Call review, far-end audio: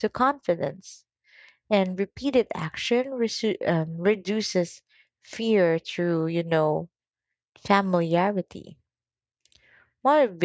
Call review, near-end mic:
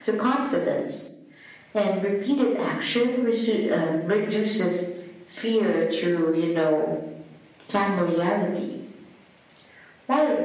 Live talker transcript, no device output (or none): none